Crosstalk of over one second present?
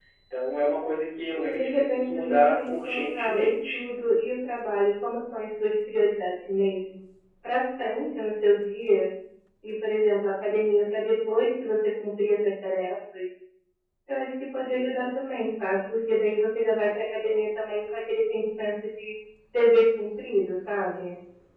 Yes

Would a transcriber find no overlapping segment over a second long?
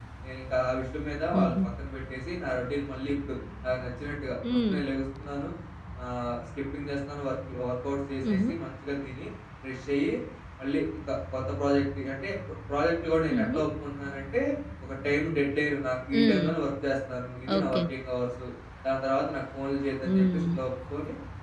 Yes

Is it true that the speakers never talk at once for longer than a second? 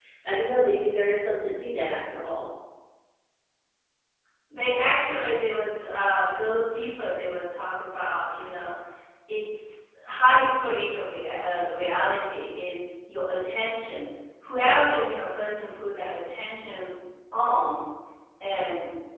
Yes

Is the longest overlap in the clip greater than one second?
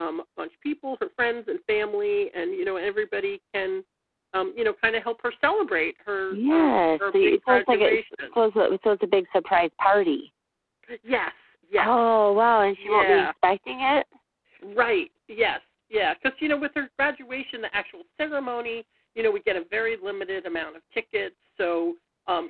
Yes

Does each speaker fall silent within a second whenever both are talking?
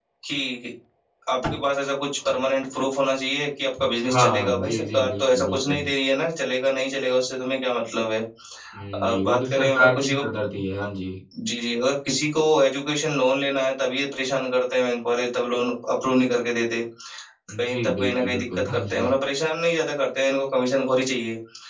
No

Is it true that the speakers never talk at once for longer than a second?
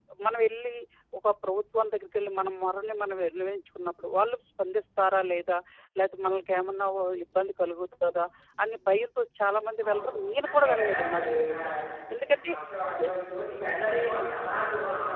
No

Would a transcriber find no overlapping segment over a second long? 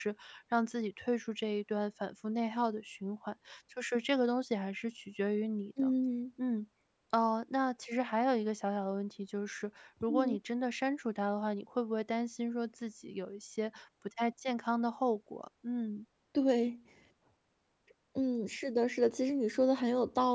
Yes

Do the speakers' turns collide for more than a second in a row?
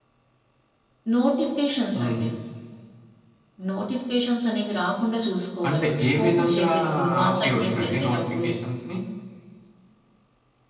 Yes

